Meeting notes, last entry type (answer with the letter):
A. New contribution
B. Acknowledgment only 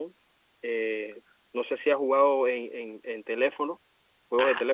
A